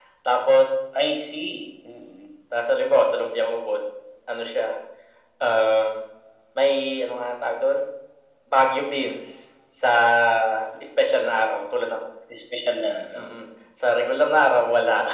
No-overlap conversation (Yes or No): Yes